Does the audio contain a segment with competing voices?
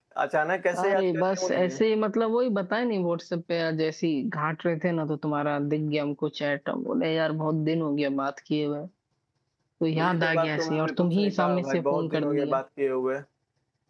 Yes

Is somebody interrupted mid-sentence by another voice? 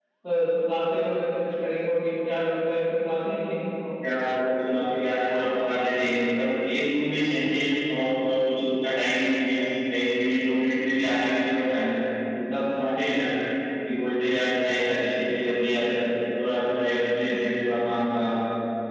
No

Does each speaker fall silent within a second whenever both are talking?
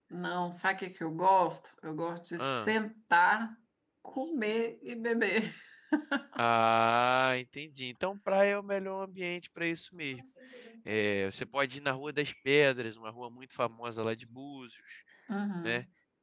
Yes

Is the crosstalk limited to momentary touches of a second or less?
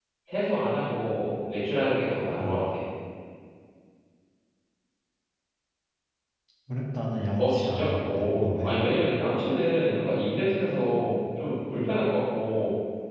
No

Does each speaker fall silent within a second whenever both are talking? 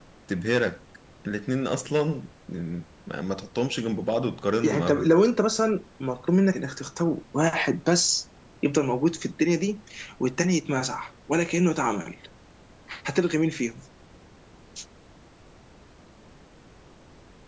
Yes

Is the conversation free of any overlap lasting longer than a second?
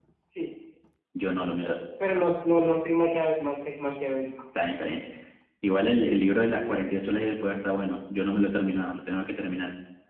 Yes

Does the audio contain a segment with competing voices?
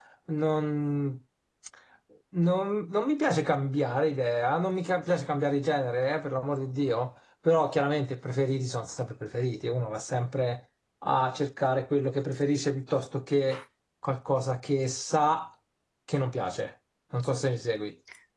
No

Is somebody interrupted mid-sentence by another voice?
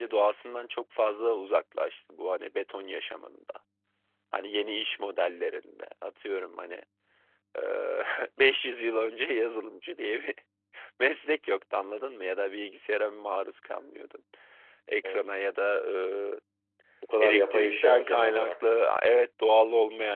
Yes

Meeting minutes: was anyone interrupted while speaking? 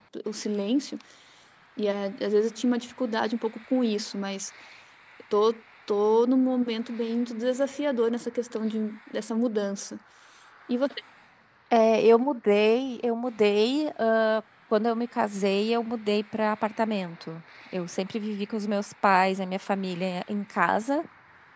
No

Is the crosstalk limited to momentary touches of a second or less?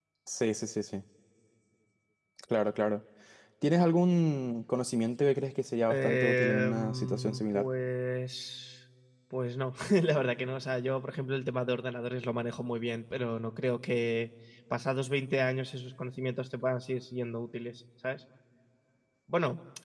No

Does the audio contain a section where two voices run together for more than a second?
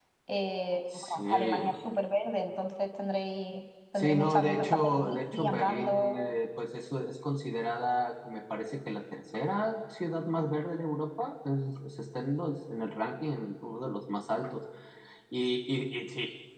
Yes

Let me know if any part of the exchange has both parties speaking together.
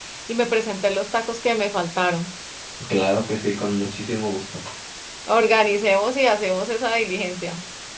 No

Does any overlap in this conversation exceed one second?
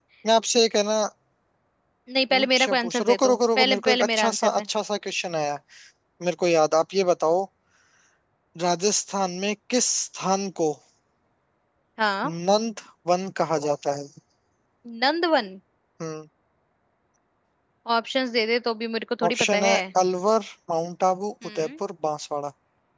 Yes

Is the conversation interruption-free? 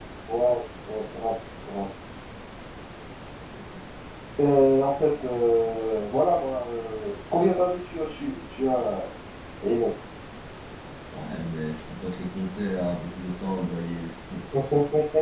Yes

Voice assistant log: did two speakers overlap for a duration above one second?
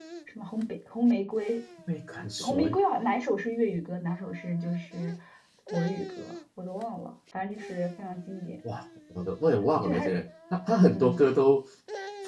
No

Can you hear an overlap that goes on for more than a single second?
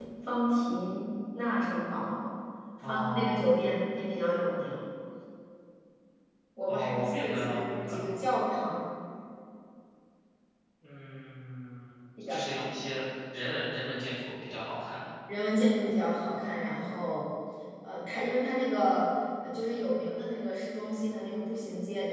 Yes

